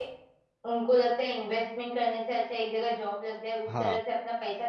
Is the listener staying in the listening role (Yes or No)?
Yes